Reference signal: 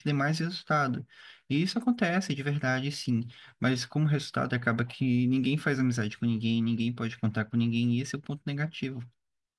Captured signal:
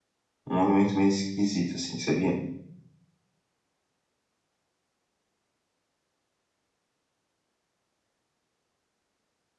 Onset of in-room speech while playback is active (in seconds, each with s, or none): 0.5 s